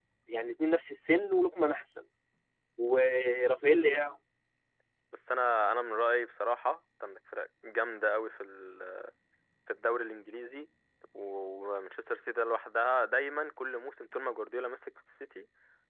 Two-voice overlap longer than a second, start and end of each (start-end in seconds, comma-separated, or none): none